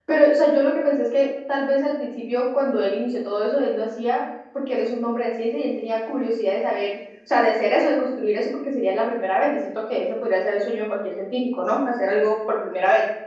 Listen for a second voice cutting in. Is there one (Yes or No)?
No